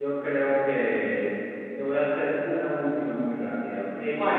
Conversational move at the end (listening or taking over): listening